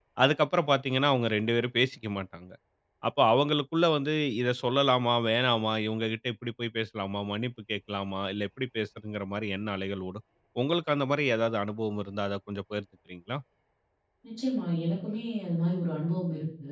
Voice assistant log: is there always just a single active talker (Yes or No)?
Yes